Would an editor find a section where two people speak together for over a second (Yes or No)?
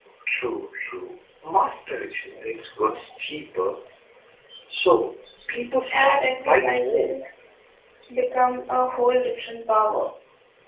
Yes